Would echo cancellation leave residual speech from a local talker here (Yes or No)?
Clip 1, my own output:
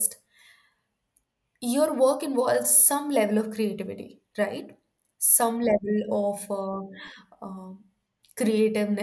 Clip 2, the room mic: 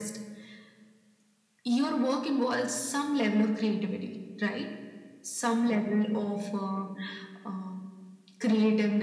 No